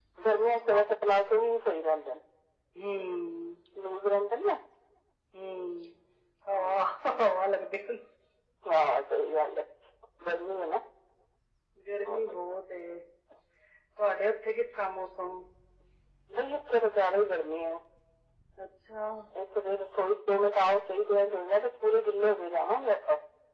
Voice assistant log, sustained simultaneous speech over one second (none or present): none